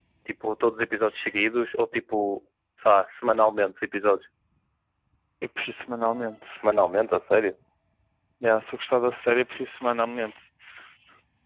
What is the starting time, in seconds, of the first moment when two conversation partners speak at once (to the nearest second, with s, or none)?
none